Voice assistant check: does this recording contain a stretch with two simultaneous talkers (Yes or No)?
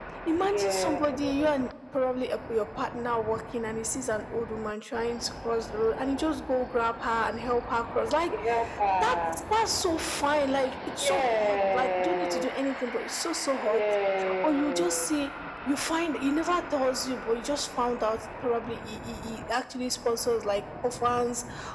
Yes